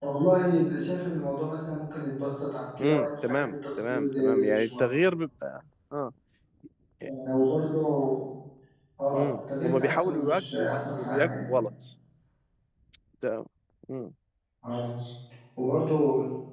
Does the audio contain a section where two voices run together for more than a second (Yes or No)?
Yes